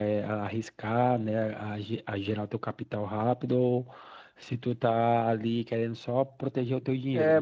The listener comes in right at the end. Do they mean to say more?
Yes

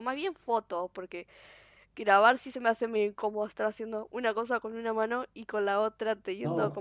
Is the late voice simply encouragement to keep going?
No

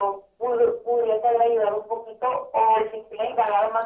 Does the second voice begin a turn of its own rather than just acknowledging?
No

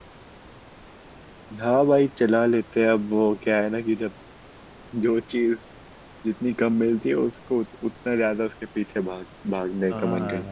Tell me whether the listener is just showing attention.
No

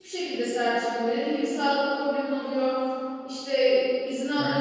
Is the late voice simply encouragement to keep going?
Yes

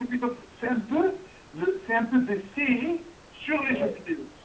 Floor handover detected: Yes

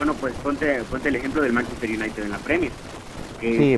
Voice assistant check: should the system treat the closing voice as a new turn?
Yes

